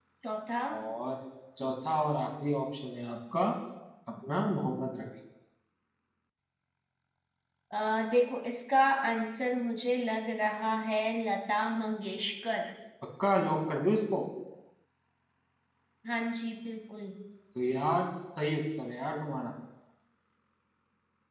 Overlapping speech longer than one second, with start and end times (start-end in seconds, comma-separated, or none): none